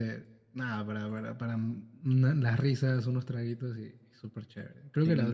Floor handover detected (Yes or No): Yes